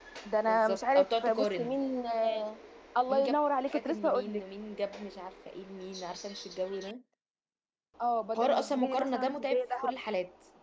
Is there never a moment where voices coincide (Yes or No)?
No